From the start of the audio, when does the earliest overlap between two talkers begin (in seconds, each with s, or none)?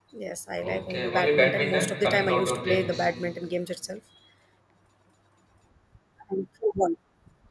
0.6 s